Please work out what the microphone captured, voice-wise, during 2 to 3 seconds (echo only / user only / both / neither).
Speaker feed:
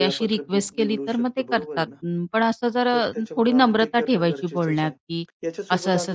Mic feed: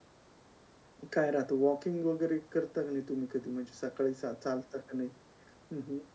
user only